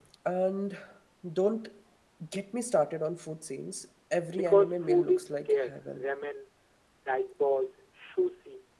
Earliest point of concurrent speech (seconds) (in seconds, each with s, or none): 4.3 s